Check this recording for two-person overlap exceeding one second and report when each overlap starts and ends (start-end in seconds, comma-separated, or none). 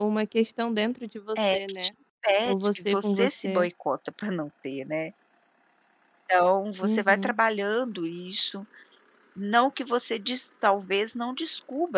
2.4-3.7